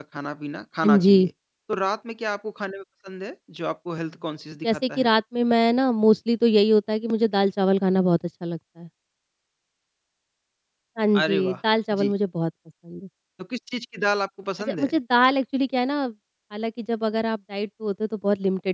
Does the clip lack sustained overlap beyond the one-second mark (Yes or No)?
Yes